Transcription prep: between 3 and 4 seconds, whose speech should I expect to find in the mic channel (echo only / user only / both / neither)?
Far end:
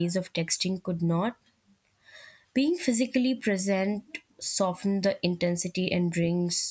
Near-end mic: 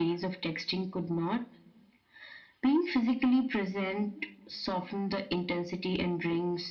echo only